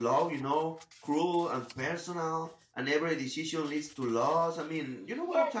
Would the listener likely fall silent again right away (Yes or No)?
No